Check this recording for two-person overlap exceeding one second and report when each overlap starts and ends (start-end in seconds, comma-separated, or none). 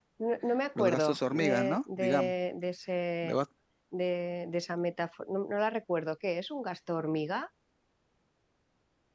0.8-2.3